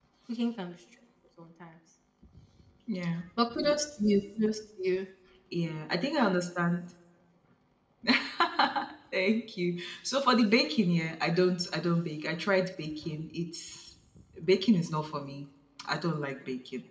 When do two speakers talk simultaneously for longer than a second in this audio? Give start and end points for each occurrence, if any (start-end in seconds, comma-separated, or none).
none